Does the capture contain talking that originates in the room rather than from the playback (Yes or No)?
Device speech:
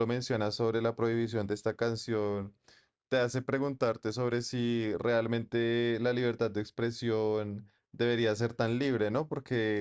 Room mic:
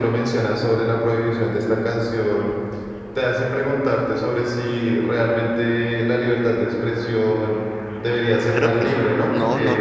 Yes